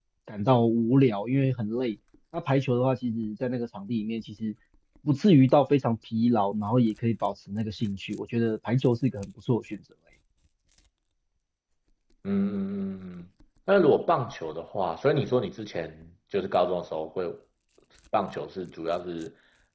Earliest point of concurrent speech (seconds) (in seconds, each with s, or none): none